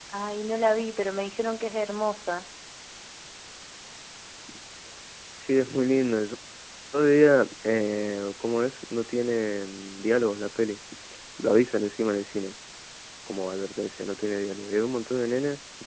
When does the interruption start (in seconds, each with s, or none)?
none